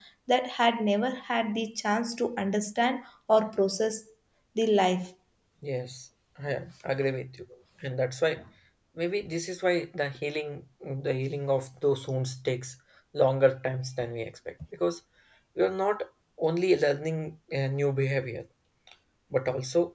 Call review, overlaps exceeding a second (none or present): none